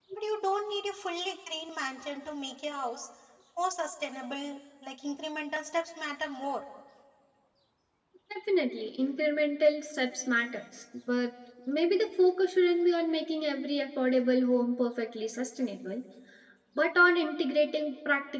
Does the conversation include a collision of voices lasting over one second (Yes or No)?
No